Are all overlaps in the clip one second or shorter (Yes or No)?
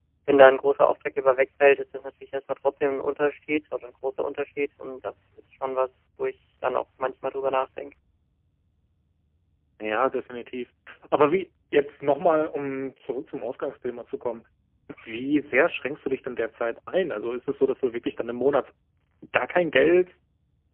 Yes